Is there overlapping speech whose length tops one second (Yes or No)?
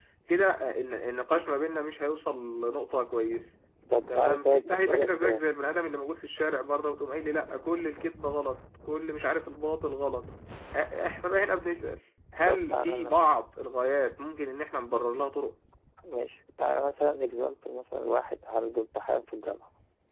Yes